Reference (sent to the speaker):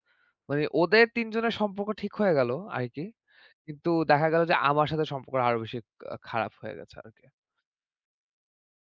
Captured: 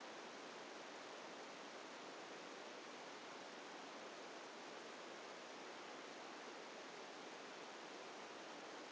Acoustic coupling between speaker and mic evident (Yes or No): No